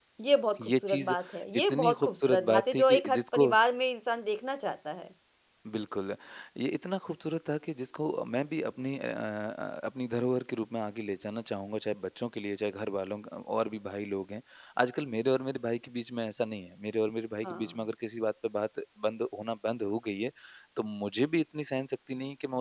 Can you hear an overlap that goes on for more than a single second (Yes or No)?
Yes